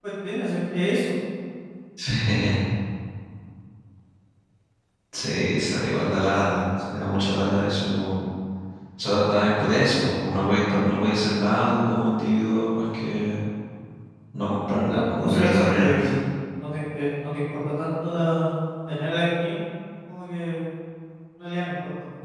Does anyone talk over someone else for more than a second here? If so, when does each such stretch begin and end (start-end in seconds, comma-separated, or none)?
14.9-16.1